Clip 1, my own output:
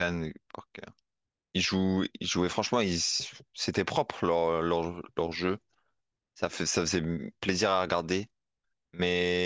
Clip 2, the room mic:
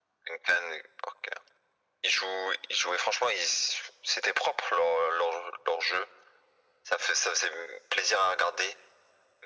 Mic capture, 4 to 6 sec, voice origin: echo only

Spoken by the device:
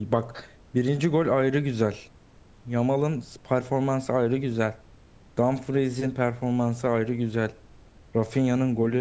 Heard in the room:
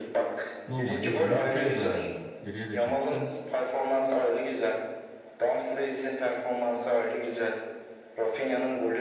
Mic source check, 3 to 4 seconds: both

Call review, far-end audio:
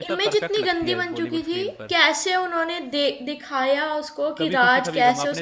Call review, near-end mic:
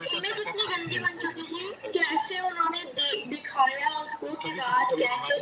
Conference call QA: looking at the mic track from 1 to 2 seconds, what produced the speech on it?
echo only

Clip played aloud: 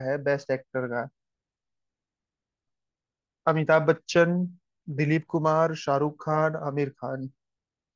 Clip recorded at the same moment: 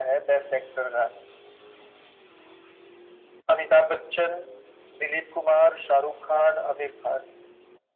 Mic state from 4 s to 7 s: echo only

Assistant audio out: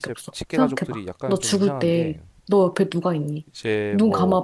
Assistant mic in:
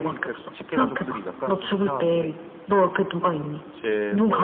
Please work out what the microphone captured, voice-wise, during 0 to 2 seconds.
echo only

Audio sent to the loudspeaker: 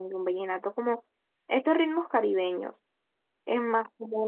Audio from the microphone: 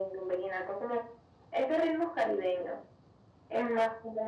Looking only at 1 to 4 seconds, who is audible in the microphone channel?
echo only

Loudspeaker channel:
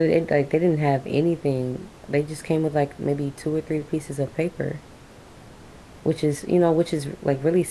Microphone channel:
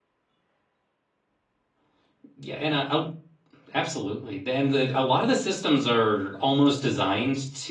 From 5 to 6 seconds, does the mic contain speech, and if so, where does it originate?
user only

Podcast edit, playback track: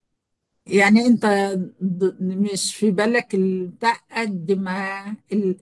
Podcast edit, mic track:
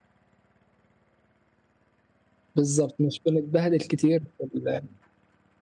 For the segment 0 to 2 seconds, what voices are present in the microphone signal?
neither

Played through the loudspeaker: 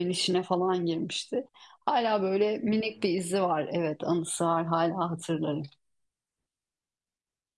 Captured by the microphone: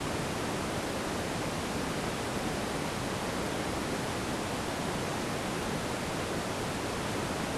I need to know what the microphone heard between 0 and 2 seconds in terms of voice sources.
neither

